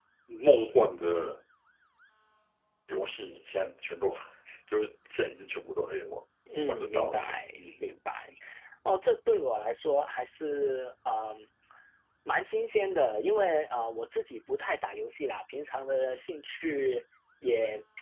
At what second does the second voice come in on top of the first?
6.7 s

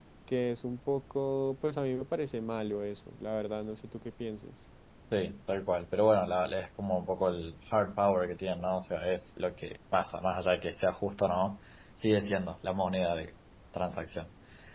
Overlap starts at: none

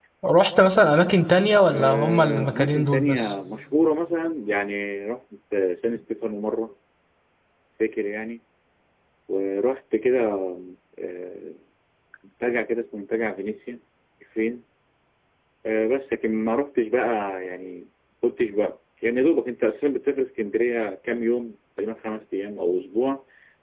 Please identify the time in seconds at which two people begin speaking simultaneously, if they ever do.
1.7 s

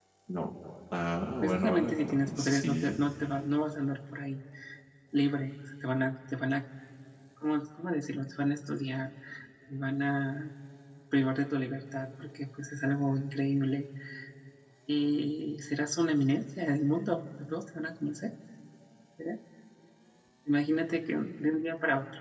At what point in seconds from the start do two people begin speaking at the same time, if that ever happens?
1.4 s

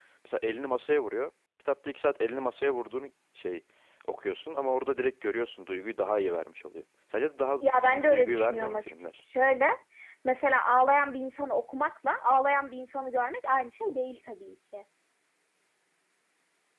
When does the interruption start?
7.6 s

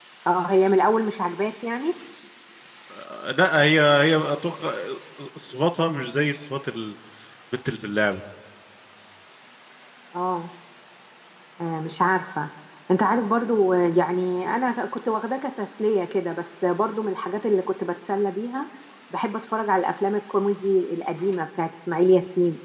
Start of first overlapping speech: none

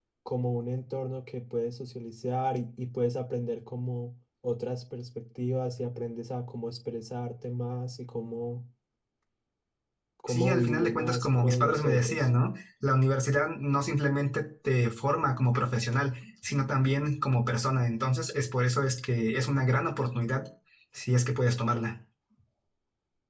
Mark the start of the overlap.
10.3 s

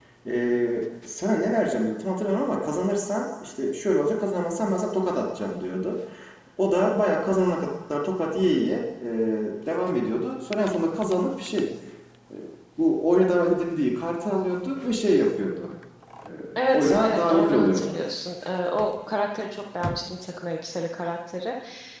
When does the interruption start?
16.7 s

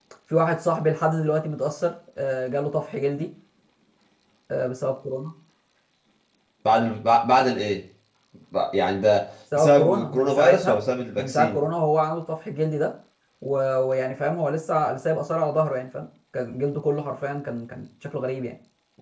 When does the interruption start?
9.5 s

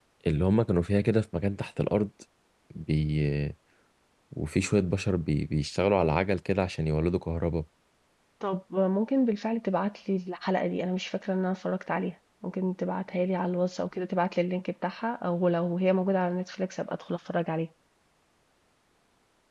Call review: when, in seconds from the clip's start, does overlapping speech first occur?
none

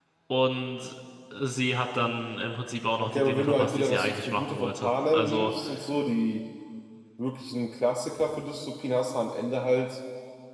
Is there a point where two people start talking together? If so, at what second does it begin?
3.0 s

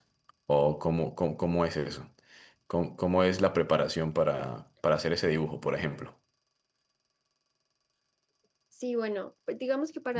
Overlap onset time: none

